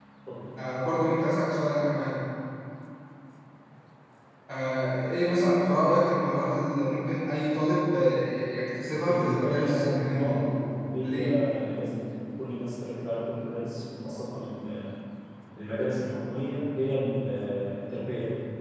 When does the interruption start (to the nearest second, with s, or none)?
9 s